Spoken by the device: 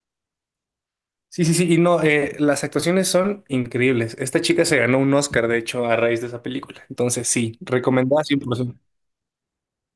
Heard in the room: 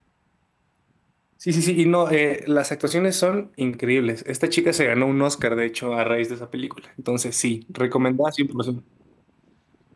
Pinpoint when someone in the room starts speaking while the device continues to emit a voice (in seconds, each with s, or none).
none